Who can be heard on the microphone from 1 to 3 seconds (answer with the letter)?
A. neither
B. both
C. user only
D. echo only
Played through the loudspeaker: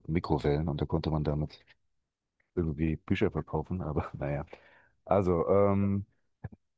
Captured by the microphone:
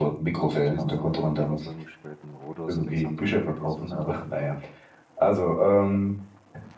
B